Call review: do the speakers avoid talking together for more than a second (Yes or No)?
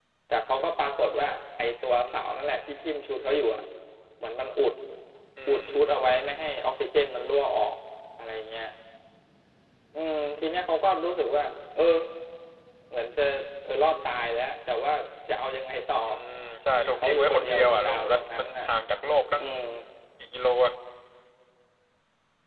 No